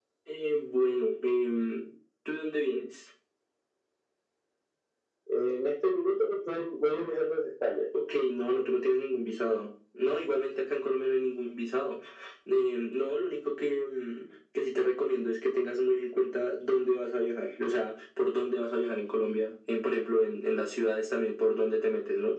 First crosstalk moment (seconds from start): none

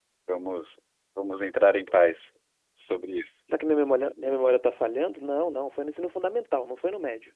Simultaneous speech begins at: none

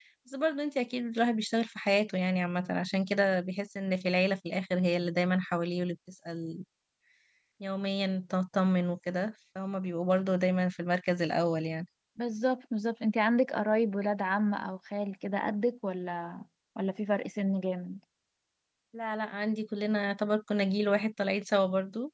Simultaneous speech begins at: none

